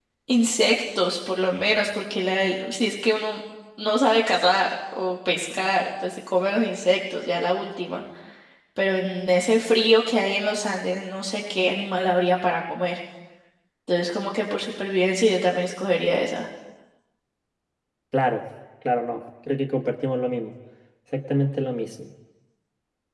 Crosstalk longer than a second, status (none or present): none